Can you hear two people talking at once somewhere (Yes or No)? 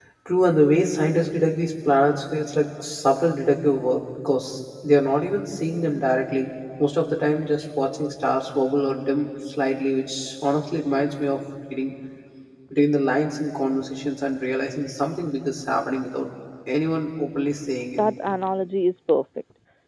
No